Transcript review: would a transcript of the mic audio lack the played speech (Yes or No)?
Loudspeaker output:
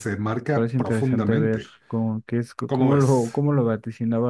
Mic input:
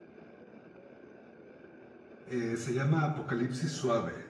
Yes